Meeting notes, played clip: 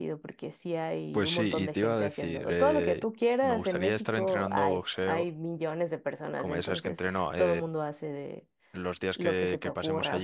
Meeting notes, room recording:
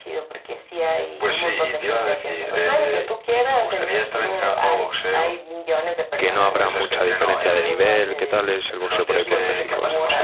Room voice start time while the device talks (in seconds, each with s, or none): 6.2 s